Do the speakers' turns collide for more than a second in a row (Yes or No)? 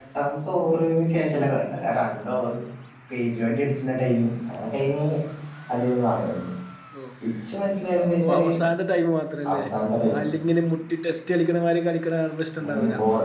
No